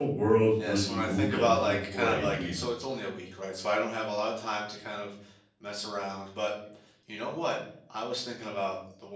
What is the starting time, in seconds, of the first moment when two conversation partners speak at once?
1 s

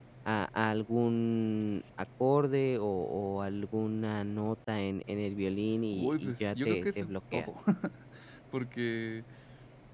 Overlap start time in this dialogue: 6 s

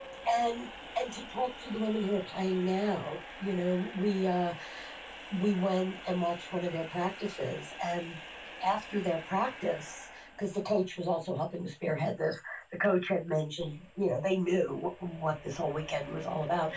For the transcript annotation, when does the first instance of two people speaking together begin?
none

